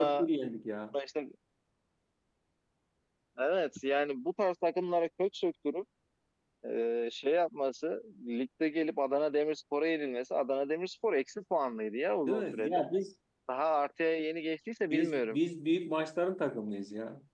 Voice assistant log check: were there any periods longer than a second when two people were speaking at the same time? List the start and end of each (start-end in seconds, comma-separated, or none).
none